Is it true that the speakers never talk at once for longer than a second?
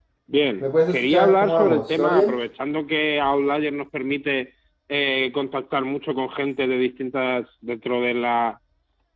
No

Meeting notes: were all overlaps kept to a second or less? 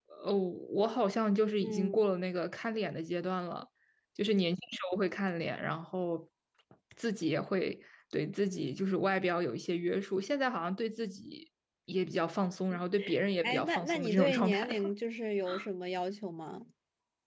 No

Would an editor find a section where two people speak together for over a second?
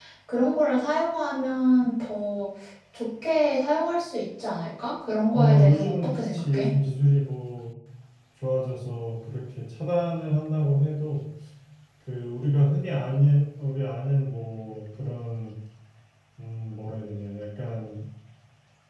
Yes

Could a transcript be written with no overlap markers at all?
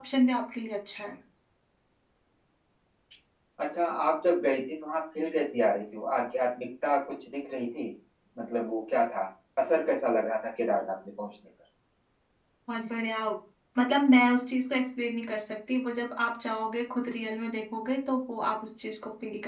Yes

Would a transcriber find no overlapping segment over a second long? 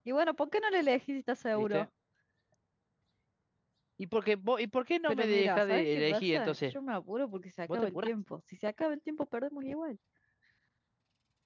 No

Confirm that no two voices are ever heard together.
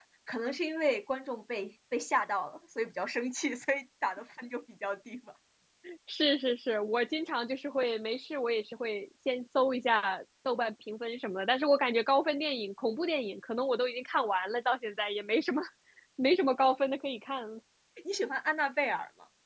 Yes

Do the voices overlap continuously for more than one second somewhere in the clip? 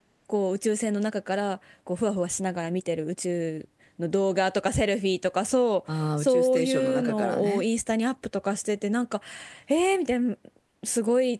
Yes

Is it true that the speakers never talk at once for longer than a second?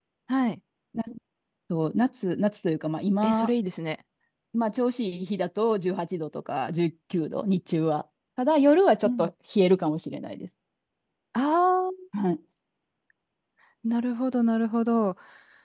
Yes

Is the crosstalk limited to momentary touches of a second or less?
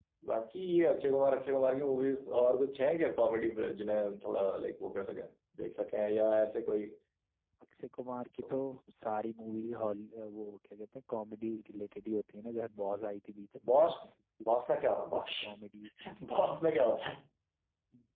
Yes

